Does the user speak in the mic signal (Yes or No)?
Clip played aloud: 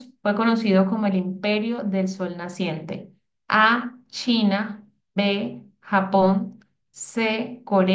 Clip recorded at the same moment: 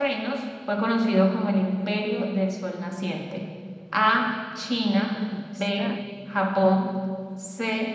Yes